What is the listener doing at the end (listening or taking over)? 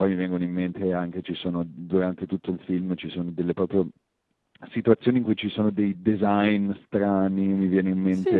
taking over